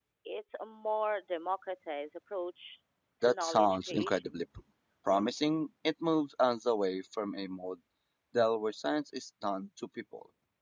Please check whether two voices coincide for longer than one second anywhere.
Yes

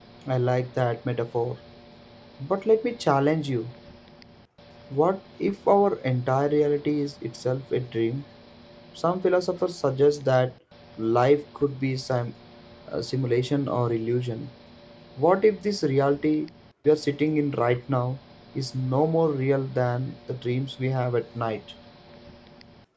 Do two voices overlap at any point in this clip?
No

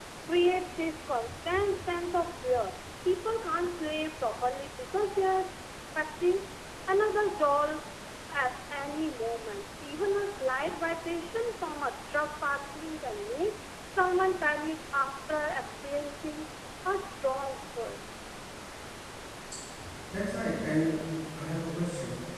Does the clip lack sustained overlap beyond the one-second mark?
Yes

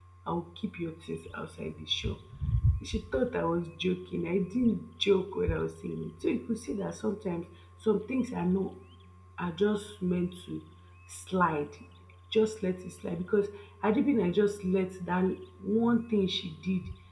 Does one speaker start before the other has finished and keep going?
No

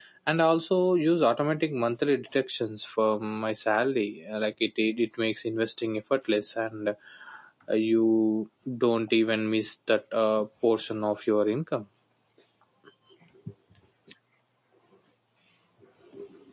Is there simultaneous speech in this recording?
No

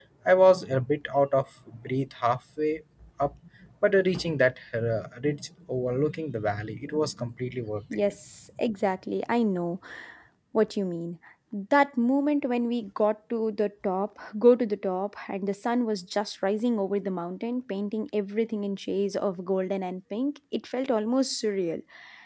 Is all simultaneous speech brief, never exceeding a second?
Yes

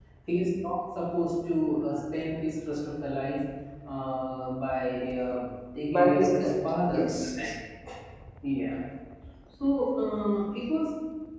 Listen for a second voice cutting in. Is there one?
Yes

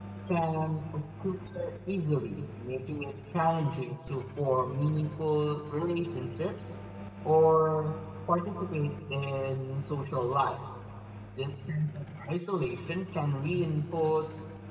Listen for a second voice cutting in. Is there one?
No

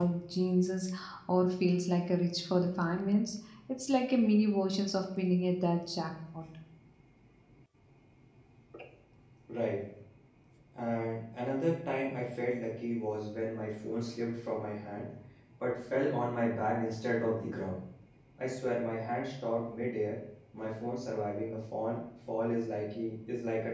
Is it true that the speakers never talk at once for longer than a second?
Yes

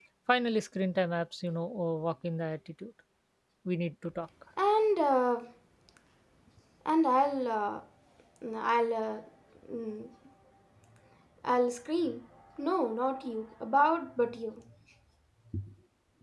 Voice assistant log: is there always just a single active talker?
Yes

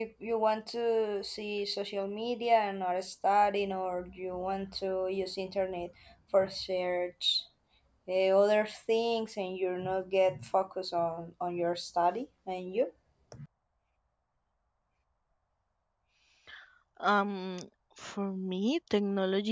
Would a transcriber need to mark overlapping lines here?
No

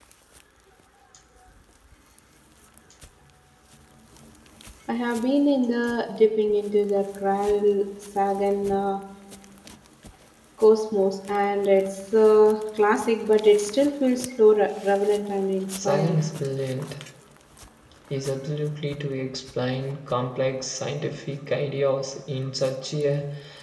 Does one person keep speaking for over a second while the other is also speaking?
No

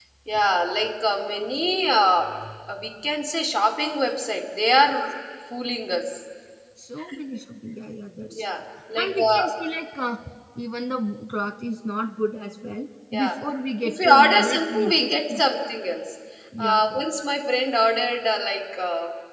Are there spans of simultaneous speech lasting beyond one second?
Yes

